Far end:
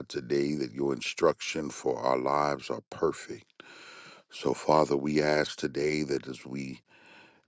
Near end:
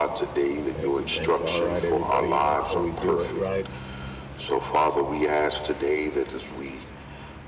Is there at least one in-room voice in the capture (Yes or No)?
Yes